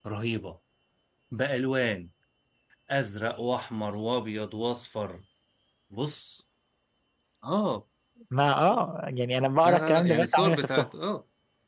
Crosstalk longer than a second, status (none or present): present